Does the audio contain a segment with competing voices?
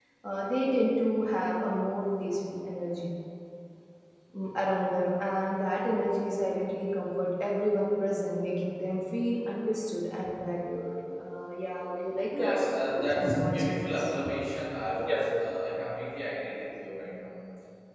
Yes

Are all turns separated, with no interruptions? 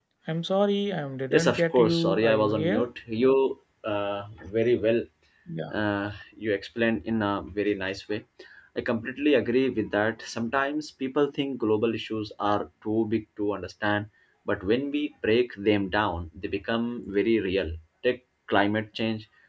No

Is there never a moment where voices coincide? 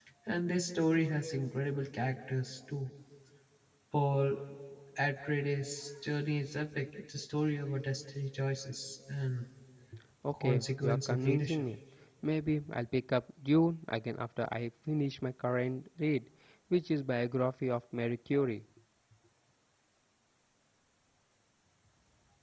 No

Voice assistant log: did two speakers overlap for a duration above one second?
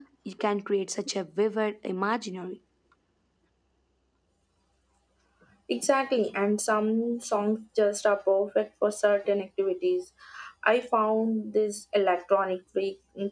No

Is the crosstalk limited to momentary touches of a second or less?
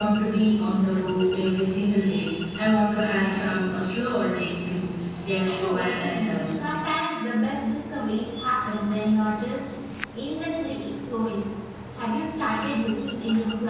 No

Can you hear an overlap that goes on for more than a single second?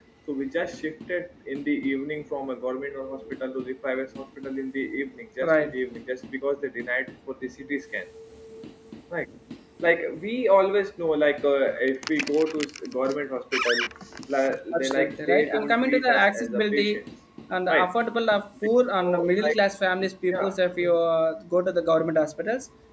Yes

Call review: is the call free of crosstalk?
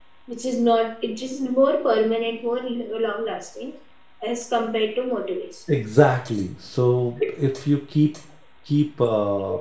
Yes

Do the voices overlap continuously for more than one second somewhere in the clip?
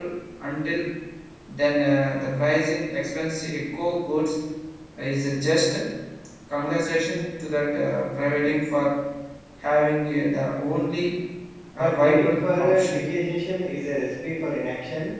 Yes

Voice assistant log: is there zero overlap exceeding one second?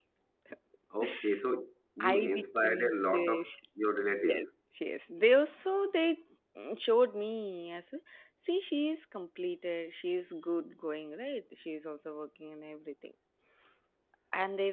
No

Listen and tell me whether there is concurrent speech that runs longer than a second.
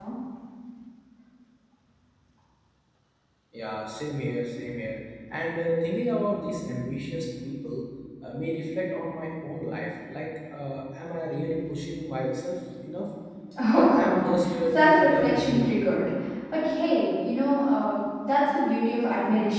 Yes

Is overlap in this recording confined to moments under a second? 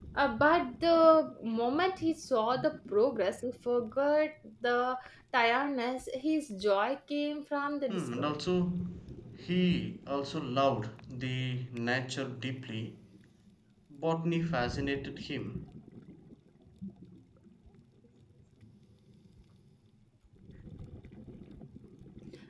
Yes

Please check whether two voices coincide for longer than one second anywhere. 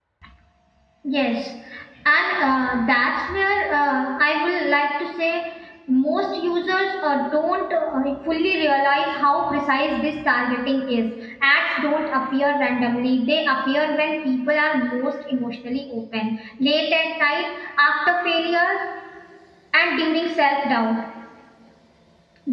No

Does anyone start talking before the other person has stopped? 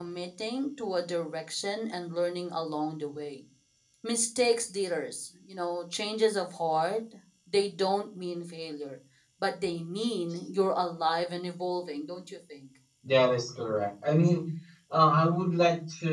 No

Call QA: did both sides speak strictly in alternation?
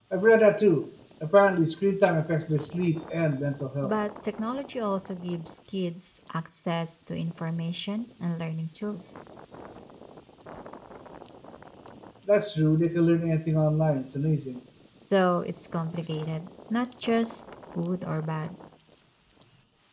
Yes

